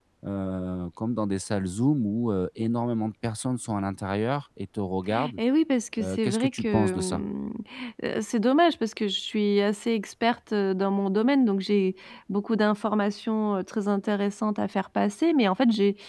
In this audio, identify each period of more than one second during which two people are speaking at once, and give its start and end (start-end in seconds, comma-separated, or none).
6.0-7.2